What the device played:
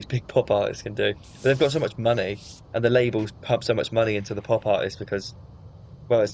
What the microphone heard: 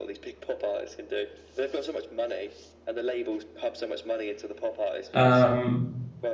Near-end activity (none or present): present